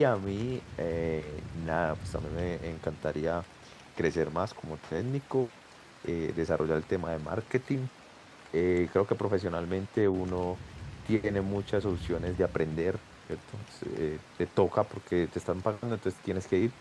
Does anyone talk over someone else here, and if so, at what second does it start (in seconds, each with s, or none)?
none